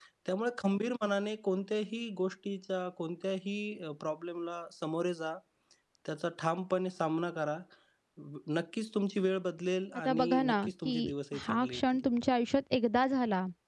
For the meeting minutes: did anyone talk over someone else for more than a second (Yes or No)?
Yes